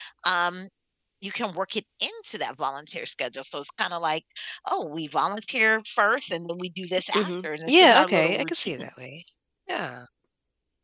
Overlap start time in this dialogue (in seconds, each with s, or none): 7.1 s